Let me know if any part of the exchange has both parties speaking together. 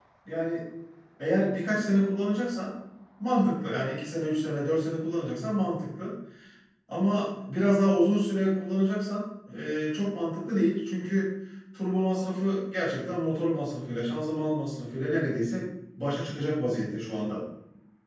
No

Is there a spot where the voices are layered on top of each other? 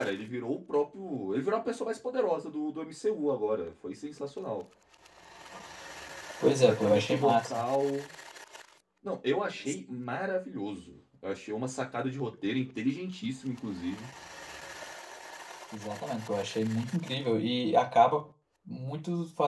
Yes, from 6.4 s

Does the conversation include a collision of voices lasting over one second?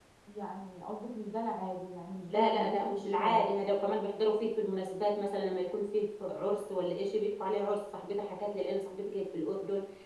Yes, from 2.3 s

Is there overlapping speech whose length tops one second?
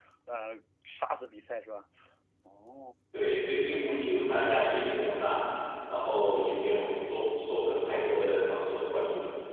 No

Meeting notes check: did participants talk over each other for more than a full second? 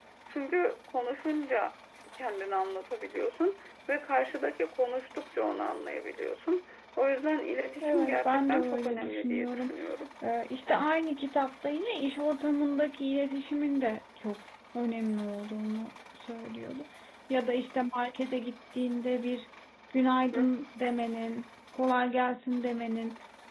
Yes, from 7.8 s

